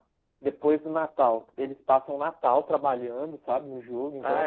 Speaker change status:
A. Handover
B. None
A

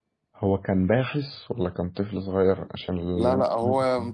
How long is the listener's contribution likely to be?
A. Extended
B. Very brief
A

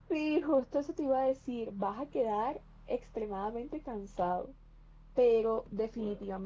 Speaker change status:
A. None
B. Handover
A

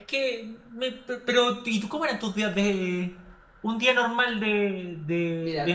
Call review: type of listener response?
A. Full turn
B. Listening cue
A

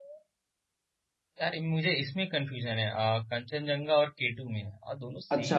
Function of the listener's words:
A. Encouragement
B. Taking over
B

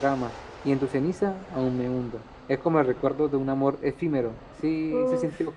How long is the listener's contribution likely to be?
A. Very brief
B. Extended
B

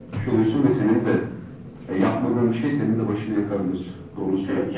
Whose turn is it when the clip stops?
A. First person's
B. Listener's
B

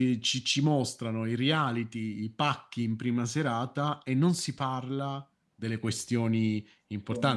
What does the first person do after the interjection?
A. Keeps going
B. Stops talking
A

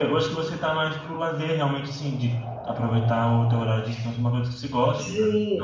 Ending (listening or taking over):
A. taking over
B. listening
A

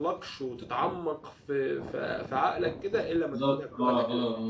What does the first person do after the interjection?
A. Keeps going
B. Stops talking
B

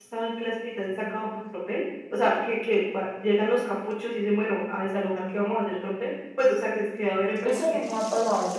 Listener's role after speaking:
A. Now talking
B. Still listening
A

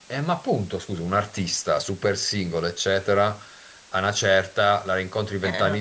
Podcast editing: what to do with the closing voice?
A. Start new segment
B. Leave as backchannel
B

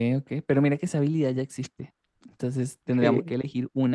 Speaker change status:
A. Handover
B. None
B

